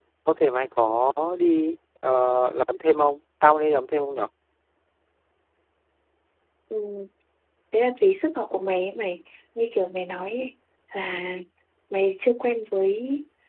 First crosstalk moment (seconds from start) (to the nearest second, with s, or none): none